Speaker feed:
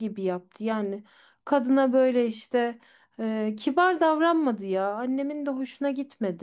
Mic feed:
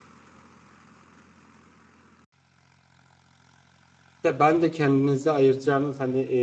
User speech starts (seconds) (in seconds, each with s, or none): 4.2 s